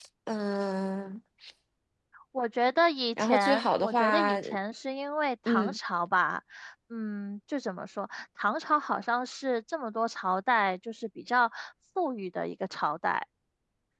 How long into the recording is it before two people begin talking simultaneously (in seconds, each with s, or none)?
3.2 s